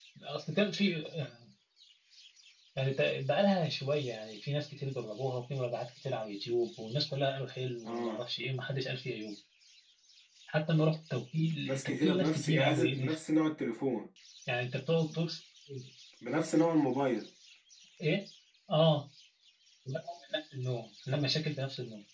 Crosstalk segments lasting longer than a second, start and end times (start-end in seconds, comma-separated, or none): 11.7-13.1